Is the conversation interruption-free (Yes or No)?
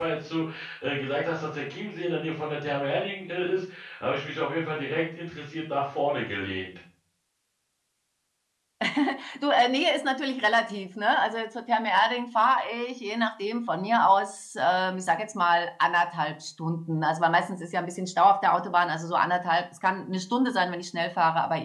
Yes